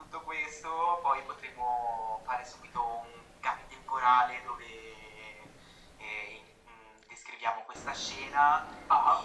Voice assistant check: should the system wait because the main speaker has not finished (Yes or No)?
Yes